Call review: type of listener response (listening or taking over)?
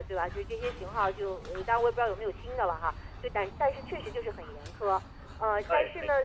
listening